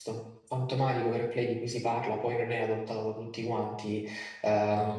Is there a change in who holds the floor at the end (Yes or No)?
No